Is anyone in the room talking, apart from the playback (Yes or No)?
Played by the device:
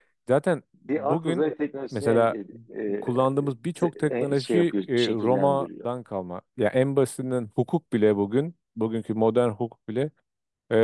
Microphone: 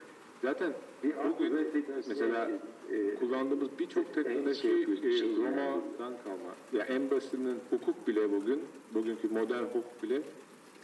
No